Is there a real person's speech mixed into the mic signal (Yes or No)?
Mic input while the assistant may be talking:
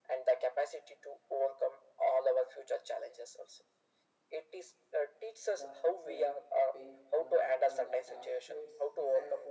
Yes